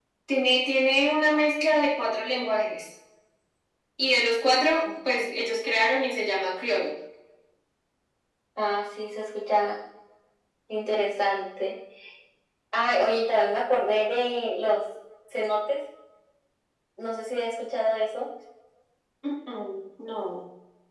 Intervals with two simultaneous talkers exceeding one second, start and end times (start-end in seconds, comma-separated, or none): none